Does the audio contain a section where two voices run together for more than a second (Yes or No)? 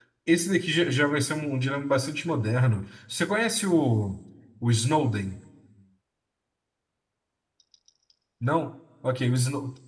No